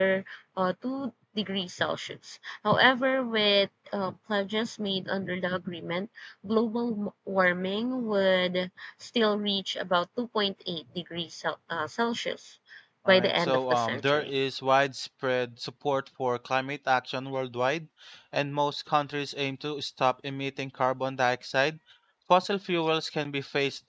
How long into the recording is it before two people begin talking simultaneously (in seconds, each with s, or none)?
13.1 s